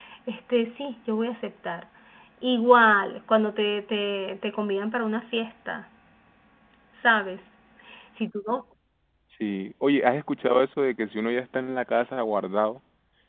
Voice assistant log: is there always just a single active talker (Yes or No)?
Yes